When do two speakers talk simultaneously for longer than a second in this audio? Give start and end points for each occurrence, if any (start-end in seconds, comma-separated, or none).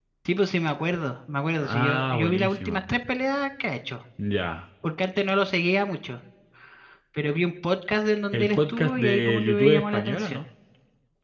1.6-2.8, 8.3-10.4